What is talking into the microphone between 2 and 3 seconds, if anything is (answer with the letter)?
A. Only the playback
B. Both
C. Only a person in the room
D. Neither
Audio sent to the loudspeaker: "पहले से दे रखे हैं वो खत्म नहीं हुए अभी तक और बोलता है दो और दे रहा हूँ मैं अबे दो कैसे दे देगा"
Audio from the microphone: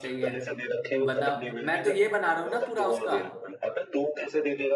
B